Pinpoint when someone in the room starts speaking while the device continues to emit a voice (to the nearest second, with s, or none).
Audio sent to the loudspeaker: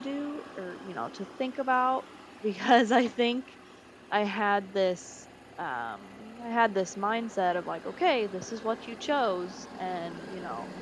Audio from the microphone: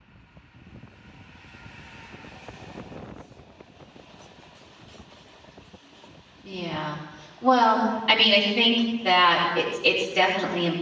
6 s